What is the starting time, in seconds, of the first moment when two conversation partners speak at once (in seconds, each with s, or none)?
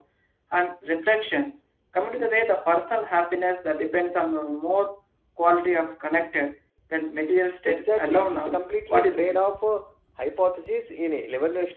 7.7 s